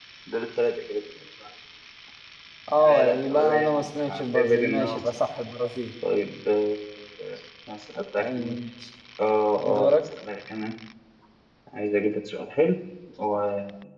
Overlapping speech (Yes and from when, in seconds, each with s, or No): Yes, from 2.8 s